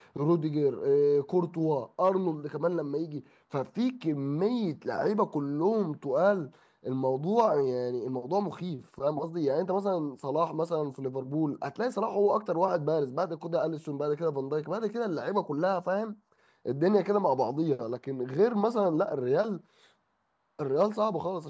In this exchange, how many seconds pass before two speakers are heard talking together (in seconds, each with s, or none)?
none